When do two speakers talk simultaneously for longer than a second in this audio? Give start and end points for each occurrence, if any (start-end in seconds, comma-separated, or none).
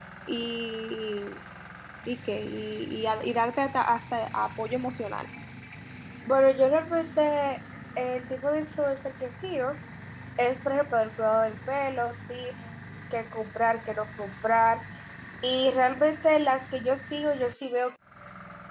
none